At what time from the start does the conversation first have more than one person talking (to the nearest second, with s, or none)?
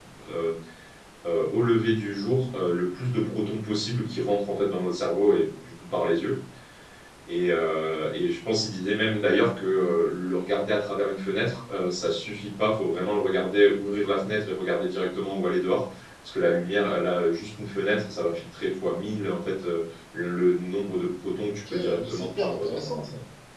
21 s